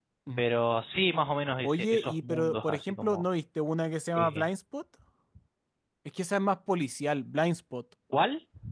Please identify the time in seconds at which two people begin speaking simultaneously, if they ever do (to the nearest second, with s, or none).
2 s